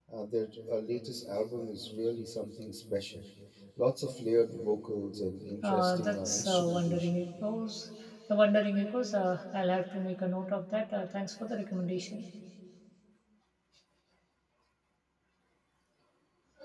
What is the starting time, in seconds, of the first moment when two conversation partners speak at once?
5.6 s

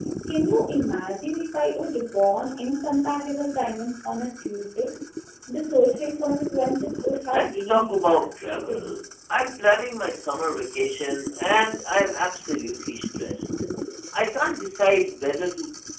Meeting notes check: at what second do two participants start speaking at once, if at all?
7.3 s

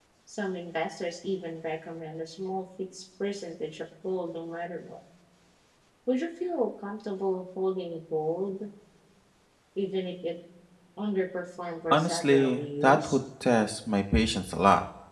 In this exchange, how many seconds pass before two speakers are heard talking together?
11.9 s

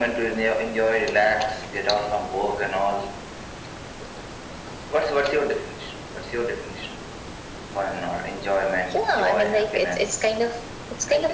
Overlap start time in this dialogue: 8.9 s

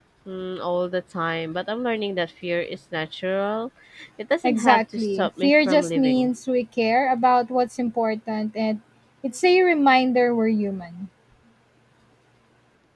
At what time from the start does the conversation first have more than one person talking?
4.4 s

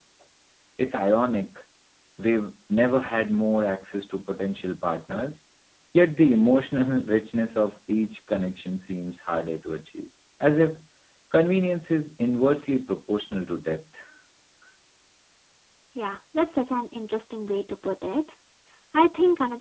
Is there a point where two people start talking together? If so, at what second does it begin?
none

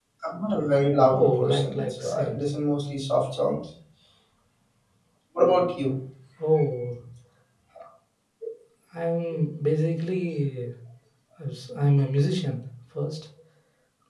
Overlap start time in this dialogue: 1.1 s

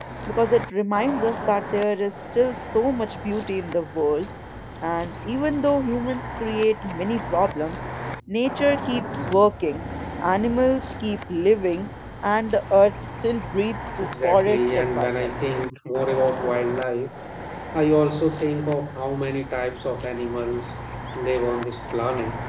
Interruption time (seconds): 14.0 s

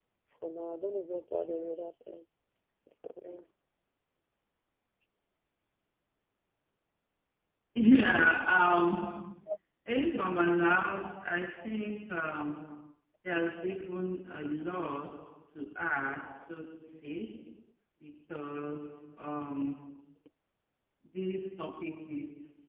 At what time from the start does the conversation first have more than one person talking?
none

